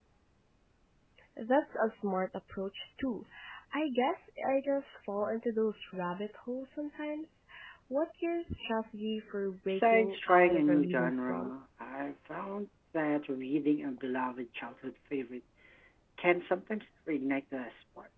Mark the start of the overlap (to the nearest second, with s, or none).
10 s